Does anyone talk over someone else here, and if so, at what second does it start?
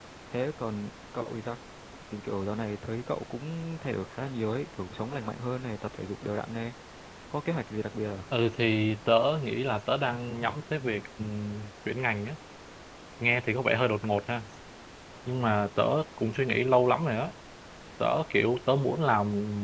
none

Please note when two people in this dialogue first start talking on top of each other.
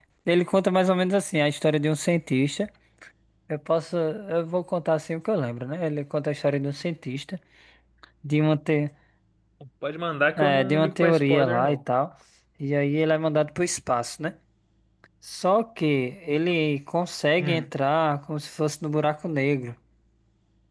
10 s

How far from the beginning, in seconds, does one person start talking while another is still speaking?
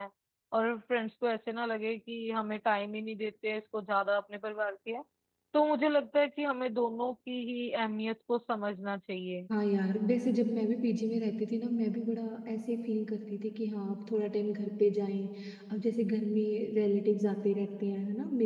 none

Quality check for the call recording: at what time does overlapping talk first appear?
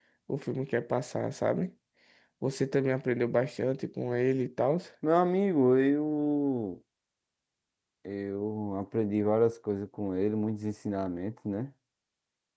none

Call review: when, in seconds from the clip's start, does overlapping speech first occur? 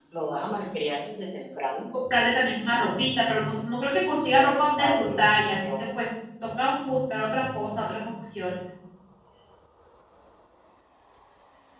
4 s

